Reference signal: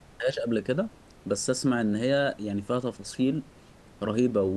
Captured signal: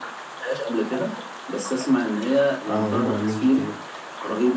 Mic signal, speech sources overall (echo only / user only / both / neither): both